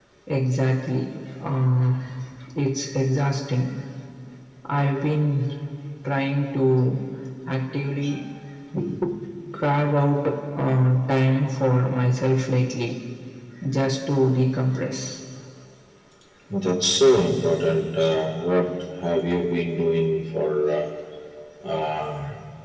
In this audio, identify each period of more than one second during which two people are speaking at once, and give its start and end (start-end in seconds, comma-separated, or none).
none